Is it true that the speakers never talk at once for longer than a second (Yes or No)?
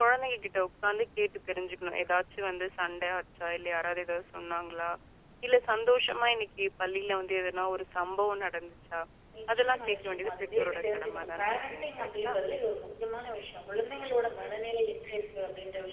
No